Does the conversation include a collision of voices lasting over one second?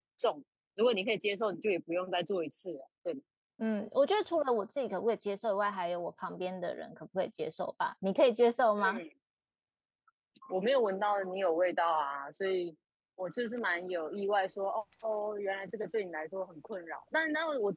No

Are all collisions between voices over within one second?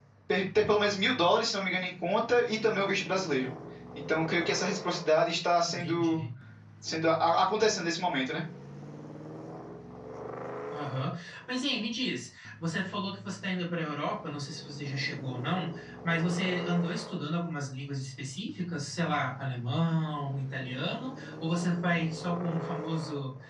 Yes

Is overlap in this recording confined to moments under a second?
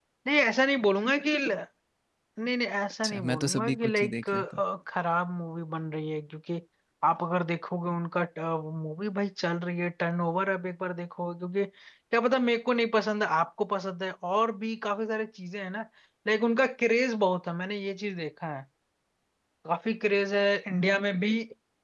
No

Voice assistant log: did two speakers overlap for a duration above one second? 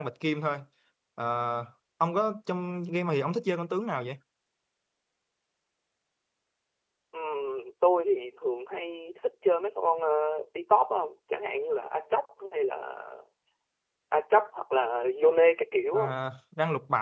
No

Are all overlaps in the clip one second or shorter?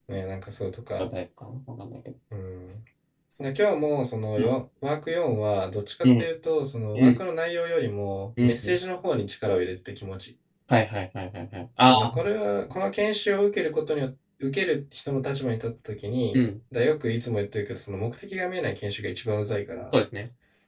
Yes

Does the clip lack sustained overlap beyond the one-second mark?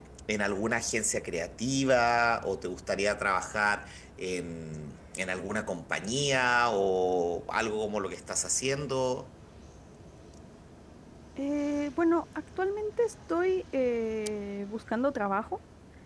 Yes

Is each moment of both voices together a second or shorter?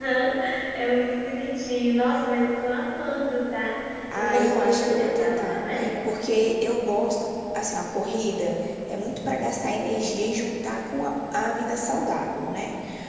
No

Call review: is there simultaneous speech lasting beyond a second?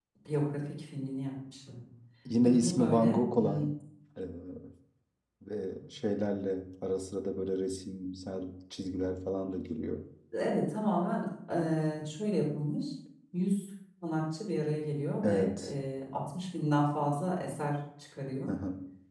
Yes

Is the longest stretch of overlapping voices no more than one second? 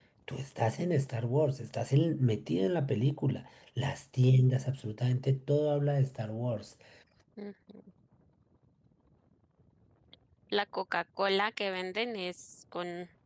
Yes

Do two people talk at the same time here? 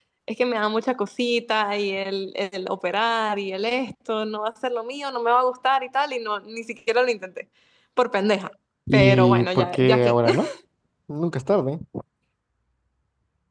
Yes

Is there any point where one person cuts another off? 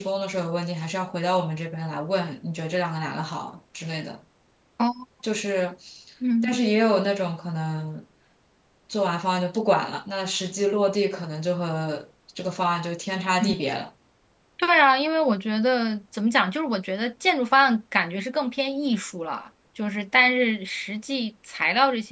No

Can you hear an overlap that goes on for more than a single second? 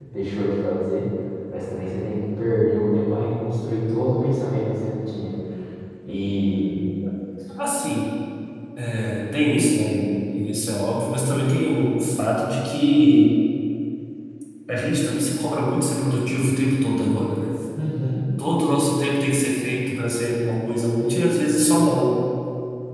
No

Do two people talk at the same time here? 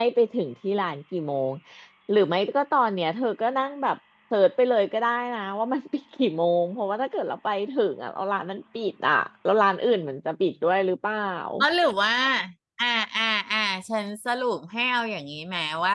No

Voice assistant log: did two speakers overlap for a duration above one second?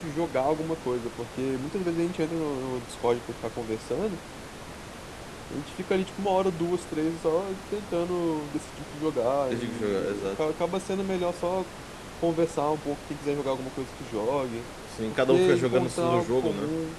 Yes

